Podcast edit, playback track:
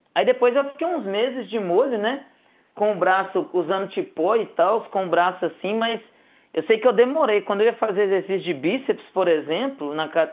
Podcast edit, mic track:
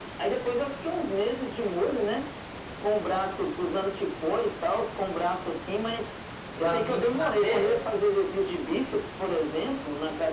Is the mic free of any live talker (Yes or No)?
No